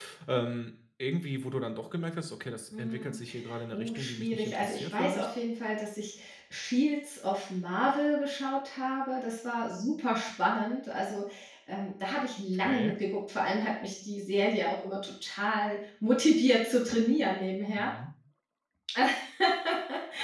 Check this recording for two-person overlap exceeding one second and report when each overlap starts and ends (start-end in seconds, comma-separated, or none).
3.7-5.3